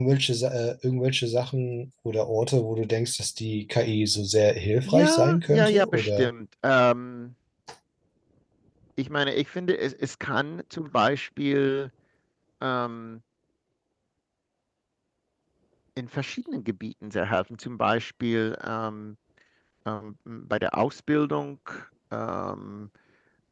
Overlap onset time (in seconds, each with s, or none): 4.8 s